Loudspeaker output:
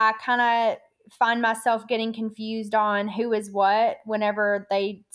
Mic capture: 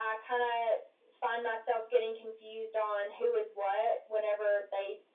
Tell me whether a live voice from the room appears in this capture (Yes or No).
No